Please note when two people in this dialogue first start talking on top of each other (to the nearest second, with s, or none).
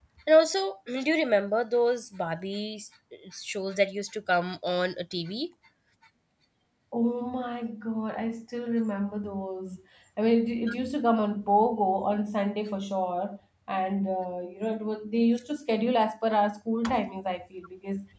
none